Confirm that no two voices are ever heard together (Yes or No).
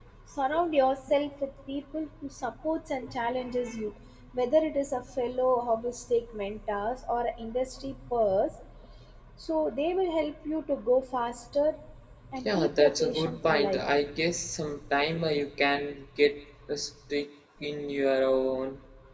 No